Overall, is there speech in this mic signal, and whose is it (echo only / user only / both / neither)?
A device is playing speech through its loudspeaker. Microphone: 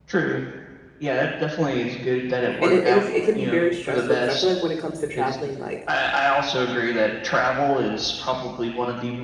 both